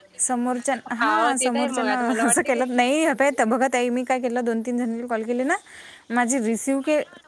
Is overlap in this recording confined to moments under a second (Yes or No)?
No